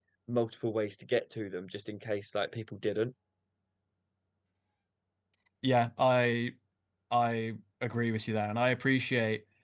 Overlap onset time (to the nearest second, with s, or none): none